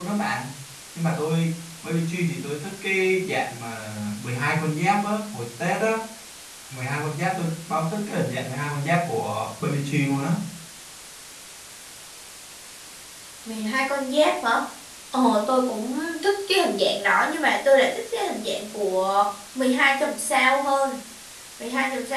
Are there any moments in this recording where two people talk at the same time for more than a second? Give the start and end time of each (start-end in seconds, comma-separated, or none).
none